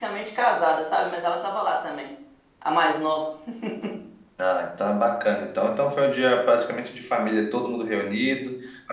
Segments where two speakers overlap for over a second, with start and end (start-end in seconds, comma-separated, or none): none